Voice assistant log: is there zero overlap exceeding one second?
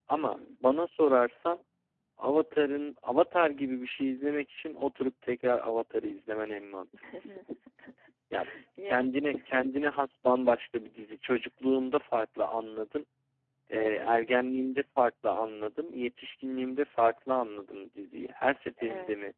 Yes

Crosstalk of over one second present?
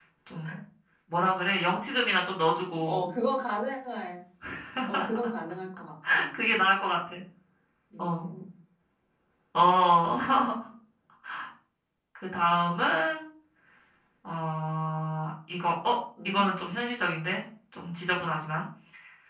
No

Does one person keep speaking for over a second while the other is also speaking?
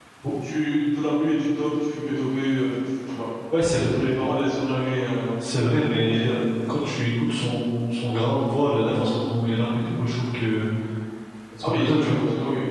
No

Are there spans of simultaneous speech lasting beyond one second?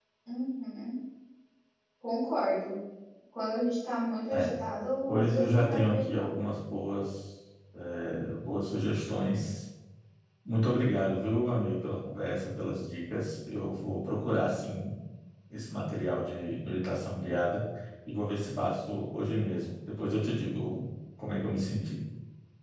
Yes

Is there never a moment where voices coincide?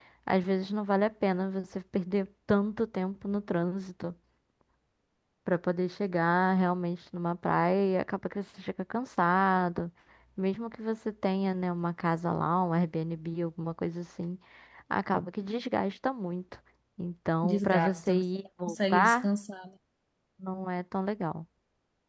No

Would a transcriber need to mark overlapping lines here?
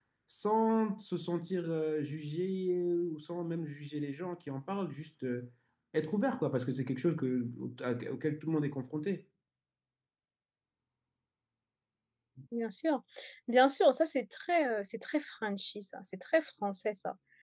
No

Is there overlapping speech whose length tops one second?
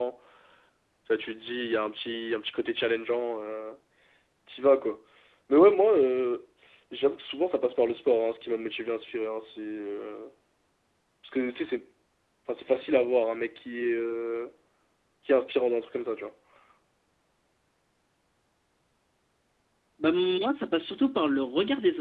No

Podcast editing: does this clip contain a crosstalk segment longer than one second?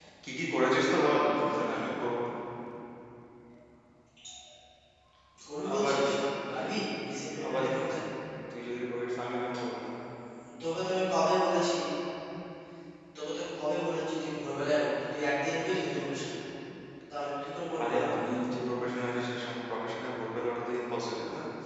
No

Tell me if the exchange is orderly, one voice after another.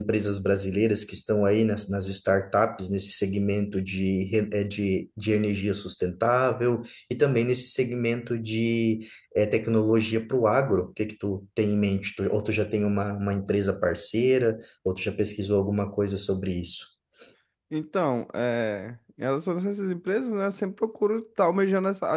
Yes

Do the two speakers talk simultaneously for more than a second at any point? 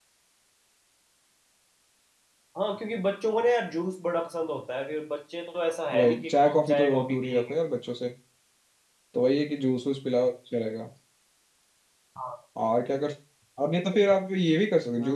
Yes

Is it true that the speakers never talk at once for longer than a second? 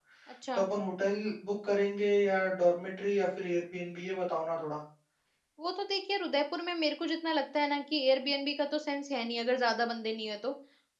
Yes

